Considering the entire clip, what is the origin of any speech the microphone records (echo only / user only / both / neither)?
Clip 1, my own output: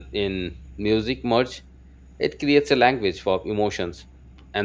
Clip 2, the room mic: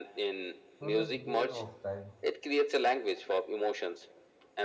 both